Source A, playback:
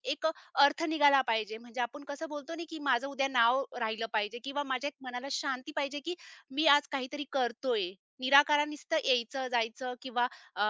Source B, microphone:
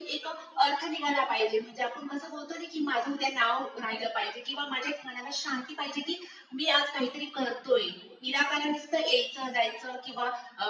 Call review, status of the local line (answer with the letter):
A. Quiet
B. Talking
A